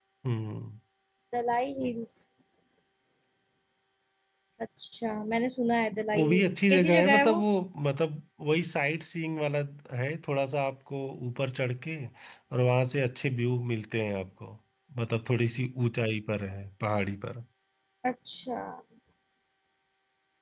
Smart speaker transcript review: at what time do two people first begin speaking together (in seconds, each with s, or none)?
5.9 s